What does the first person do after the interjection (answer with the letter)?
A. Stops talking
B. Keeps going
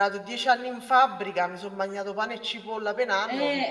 A